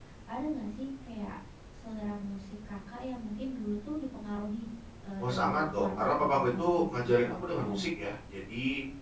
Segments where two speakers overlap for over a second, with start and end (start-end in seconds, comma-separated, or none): 5.2-7.9